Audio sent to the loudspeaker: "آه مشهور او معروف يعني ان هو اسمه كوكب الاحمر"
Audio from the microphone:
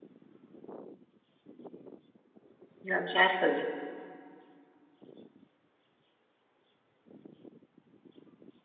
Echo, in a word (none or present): none